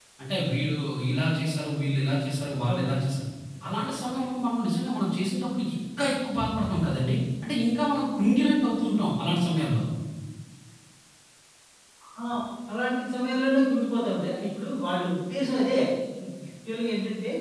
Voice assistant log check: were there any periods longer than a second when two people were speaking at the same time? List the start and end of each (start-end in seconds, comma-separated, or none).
none